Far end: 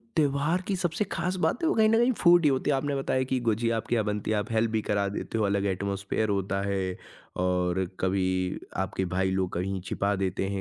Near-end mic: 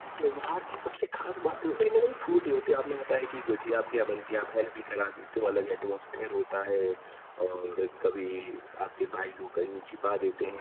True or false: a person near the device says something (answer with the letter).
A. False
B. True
A